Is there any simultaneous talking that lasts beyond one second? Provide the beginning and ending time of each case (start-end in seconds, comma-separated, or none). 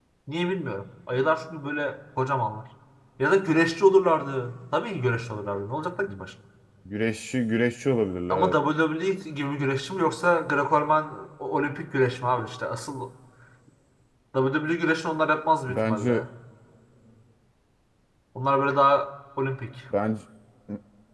none